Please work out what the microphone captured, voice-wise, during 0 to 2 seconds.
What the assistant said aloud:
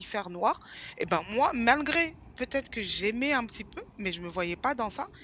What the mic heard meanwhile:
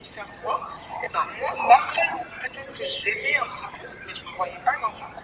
echo only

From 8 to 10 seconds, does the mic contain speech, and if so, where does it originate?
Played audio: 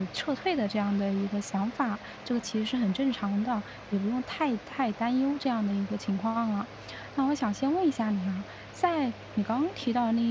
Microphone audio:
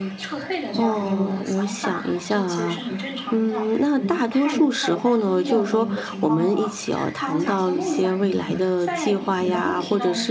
both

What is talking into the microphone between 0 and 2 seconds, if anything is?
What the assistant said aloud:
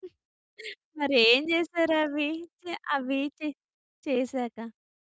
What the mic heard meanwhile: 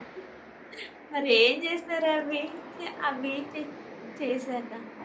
echo only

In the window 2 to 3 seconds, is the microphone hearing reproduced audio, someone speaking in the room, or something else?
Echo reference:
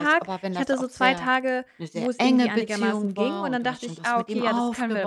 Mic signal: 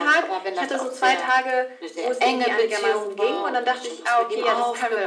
echo only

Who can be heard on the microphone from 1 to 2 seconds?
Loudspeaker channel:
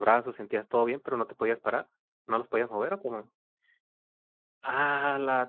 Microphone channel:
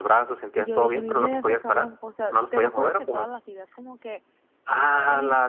both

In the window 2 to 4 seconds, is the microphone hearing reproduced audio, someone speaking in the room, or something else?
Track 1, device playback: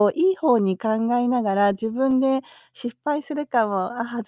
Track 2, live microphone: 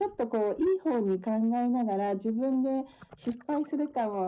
echo only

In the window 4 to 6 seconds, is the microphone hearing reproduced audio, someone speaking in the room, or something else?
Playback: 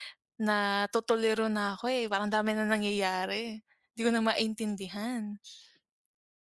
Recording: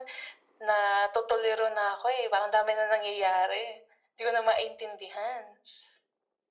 echo only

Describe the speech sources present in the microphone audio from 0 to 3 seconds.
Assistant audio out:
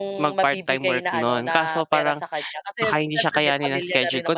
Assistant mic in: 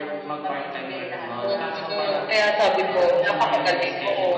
both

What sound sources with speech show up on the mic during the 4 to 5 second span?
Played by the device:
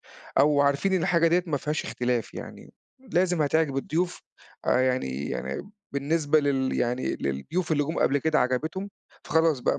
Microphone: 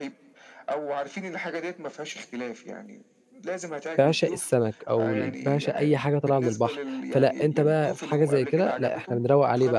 both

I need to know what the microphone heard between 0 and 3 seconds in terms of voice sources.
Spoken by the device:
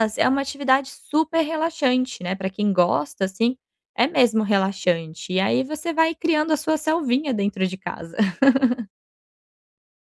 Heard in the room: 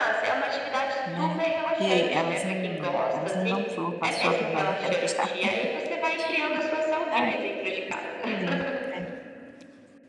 both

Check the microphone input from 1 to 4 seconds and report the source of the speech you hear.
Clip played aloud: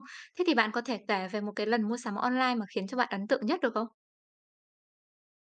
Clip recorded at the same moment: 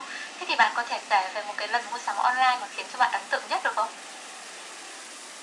echo only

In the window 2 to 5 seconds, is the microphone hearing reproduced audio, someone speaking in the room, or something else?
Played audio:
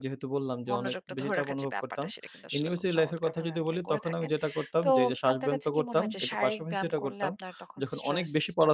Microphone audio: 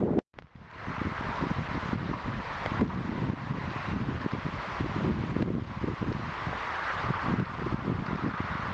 neither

